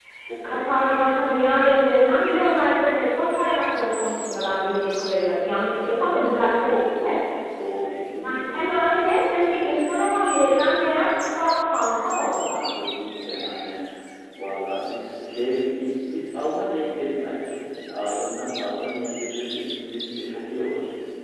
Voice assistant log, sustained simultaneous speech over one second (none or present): present